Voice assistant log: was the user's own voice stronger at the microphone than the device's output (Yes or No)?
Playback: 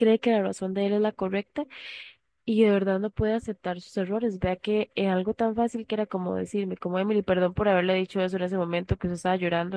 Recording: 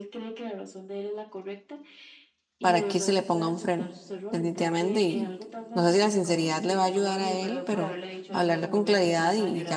Yes